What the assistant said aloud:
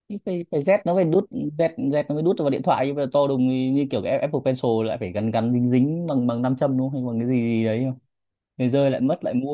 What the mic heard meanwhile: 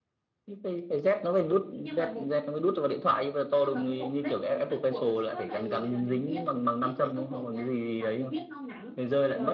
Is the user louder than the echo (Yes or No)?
No